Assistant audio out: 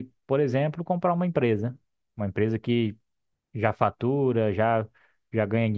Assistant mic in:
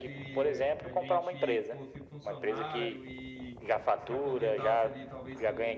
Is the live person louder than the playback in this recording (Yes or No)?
No